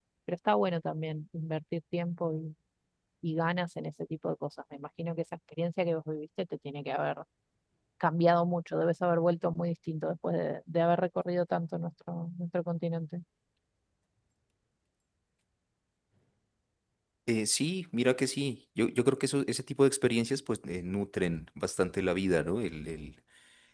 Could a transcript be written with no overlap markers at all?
Yes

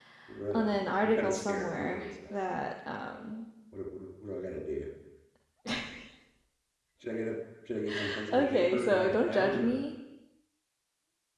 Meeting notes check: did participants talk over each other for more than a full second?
Yes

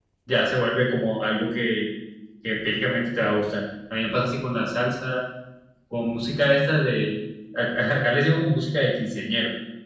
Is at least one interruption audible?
No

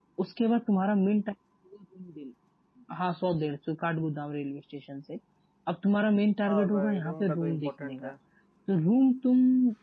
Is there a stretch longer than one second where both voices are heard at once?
Yes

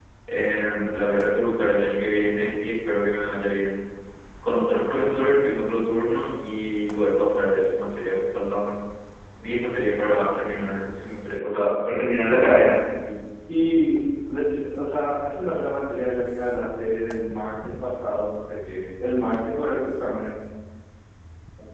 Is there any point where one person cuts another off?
No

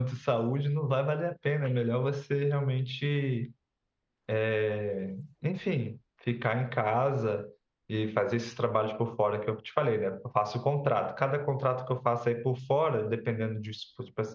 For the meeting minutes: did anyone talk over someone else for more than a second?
No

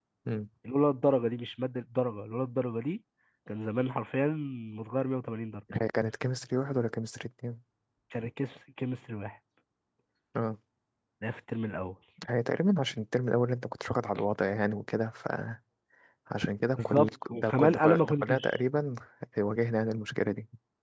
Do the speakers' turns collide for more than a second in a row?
Yes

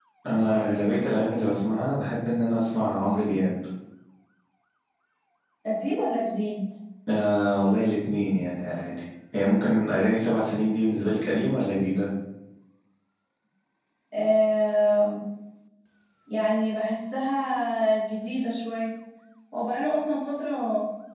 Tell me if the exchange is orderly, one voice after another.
Yes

